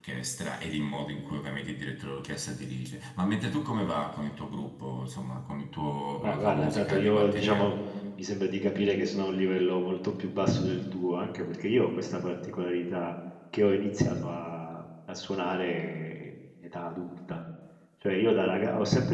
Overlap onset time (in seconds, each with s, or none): 6.2 s